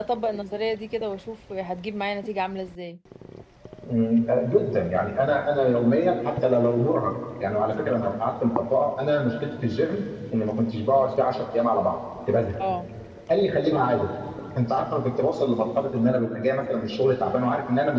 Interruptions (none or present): none